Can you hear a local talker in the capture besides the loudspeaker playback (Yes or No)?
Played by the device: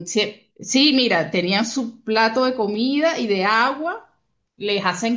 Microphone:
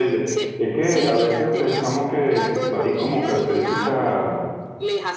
Yes